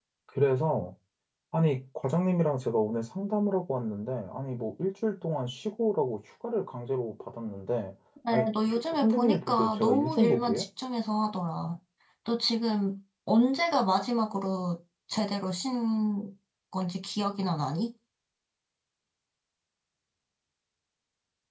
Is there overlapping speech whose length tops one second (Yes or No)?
Yes